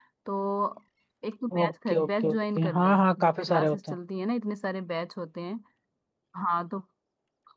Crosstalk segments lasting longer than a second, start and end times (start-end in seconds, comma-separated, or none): 1.6-4.0